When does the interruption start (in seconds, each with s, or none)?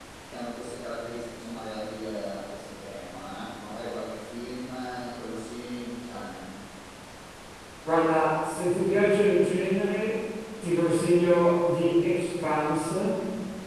none